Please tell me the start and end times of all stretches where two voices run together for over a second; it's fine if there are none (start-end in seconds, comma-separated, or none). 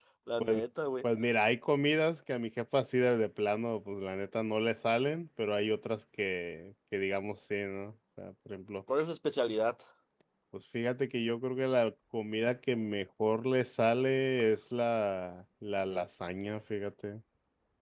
none